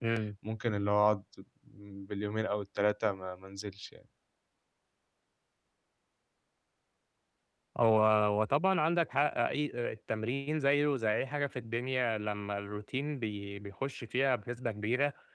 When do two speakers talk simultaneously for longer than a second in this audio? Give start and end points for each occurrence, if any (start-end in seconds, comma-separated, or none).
none